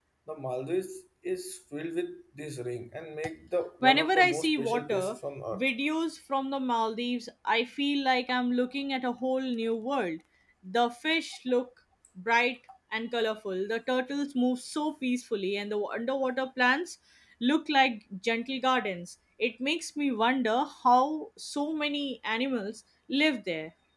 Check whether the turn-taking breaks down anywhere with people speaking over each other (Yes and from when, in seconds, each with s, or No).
Yes, from 3.8 s